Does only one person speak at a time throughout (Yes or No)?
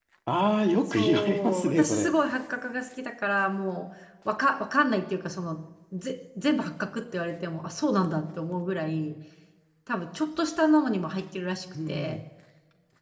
No